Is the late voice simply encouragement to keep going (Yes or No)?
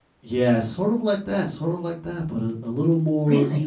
No